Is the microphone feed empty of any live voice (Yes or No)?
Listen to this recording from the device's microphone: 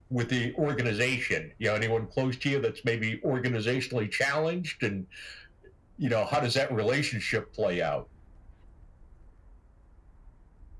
Yes